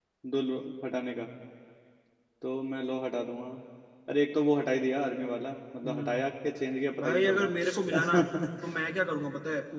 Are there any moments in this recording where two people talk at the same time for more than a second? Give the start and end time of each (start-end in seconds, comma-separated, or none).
7.0-8.2